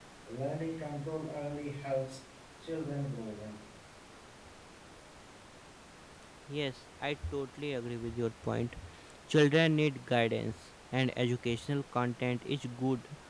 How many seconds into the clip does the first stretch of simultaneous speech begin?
none

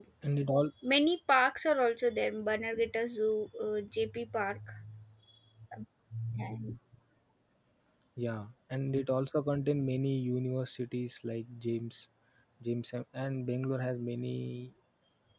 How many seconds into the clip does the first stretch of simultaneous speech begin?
none

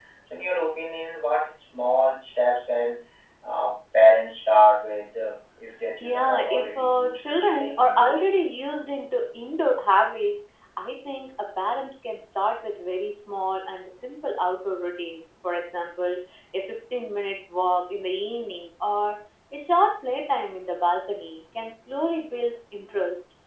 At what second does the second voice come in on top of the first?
6 s

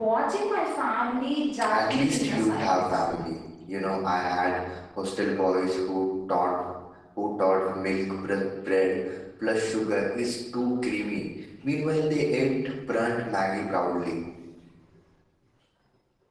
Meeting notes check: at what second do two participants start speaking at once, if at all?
2 s

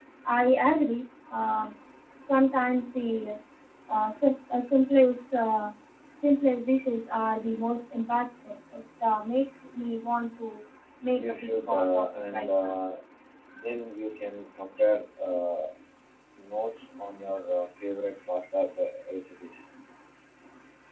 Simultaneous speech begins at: 11 s

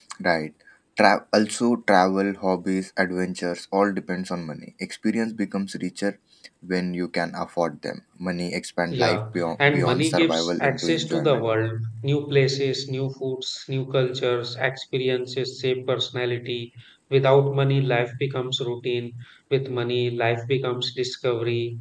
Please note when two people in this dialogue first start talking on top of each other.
9 s

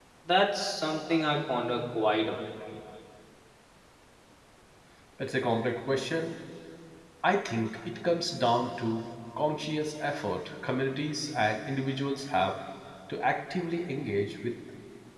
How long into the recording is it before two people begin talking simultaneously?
none

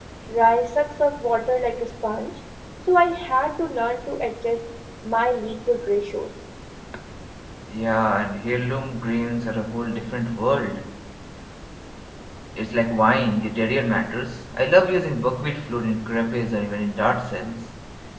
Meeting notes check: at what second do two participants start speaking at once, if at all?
none

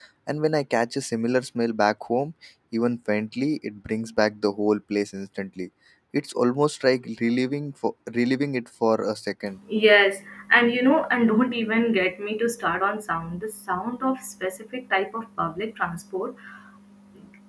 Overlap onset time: none

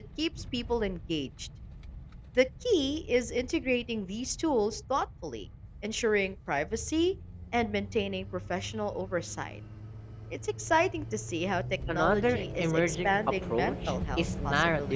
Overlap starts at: 12 s

